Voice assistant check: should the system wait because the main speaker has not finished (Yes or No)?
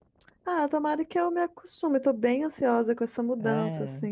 Yes